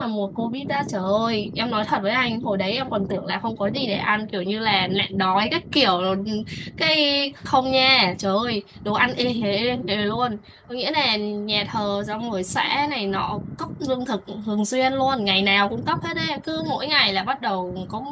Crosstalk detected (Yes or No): No